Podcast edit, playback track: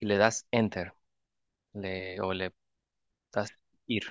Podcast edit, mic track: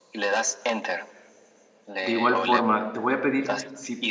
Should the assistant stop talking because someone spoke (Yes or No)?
Yes